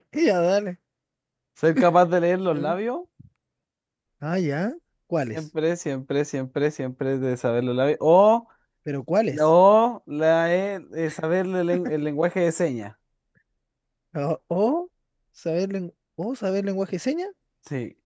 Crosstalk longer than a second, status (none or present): none